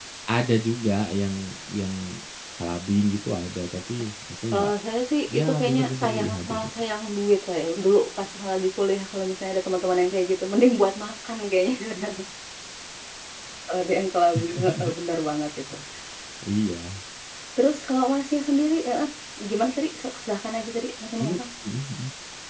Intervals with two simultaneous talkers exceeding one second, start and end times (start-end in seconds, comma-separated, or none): 5.3-6.7